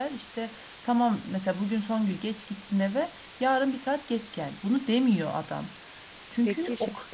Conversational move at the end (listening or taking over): taking over